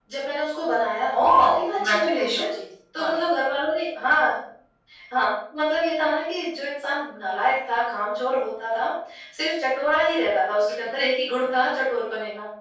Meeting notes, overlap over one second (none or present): present